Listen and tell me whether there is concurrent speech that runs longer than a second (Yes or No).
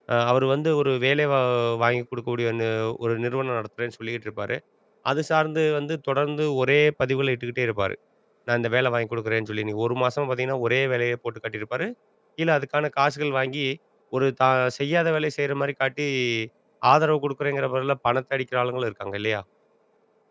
No